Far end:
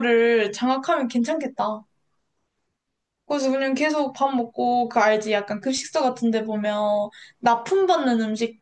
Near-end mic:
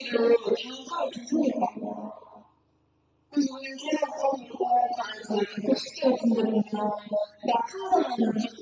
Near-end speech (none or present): none